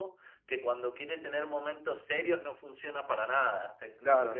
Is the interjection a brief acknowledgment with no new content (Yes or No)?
No